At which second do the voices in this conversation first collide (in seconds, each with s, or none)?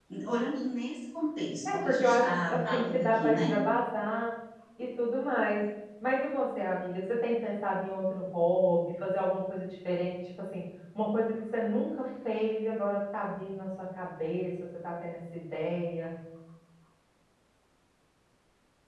1.6 s